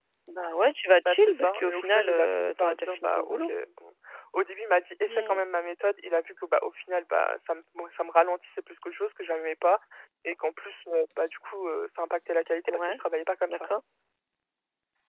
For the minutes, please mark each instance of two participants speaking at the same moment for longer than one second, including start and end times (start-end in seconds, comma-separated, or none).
1.0-3.5